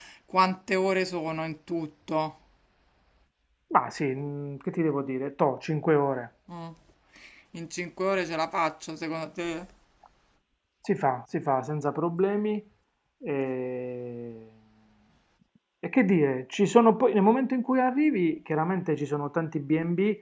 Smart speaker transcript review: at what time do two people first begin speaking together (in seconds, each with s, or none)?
none